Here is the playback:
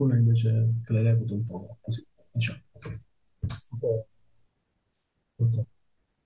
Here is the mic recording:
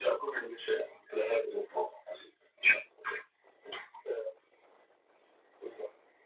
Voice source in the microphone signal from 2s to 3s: echo only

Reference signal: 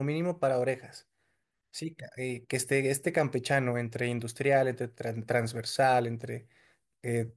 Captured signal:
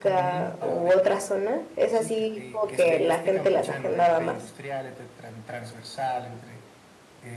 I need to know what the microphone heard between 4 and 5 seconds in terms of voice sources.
both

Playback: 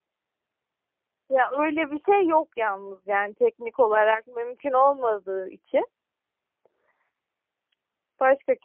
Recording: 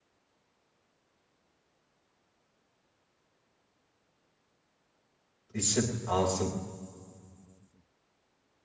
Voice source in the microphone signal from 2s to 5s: neither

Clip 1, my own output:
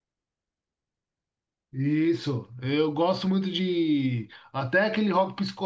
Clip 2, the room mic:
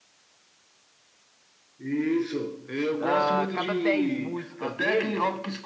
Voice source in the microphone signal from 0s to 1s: neither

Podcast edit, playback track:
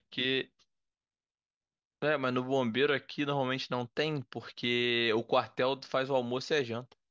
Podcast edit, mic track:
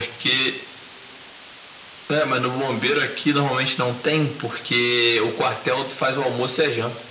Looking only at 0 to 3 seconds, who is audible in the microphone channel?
echo only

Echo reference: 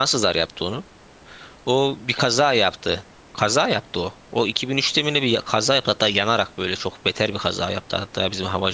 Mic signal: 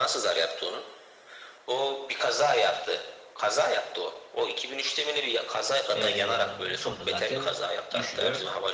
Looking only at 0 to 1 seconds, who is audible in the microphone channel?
echo only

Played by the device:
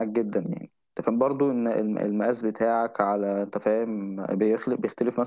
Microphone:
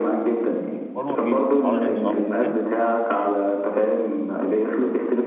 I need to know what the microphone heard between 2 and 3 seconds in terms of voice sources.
both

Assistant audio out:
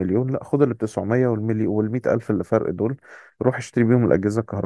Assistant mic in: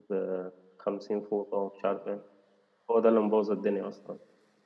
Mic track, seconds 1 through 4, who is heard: user only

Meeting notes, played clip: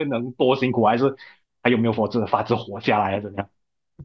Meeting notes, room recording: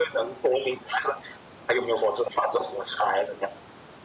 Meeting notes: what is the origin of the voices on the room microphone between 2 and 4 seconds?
echo only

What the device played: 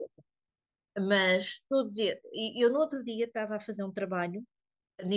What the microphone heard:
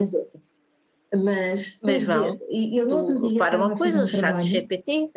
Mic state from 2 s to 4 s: both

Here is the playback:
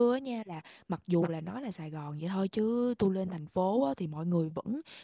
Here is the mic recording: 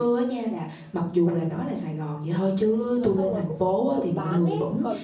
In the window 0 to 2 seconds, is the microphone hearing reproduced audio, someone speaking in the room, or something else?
echo only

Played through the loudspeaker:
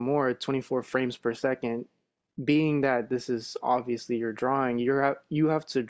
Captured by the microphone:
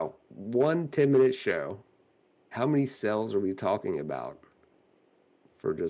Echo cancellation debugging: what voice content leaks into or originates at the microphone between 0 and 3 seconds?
user only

